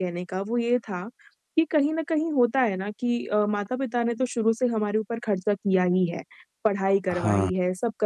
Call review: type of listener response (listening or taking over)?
listening